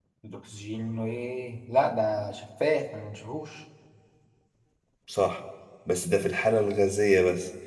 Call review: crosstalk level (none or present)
none